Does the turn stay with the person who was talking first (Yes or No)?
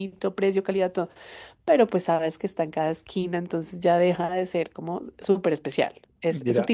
No